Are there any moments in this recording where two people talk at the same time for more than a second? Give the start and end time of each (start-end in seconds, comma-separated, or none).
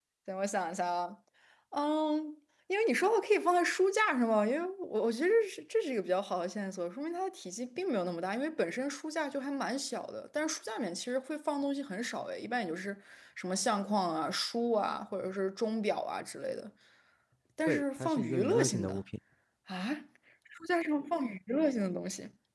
17.6-18.9